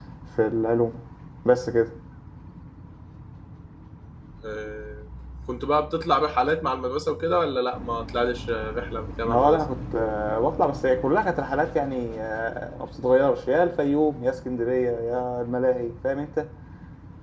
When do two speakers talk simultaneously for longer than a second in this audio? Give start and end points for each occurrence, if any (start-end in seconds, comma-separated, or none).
none